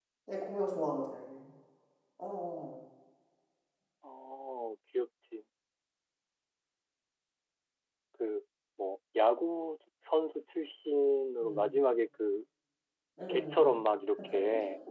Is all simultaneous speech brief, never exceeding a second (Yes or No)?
Yes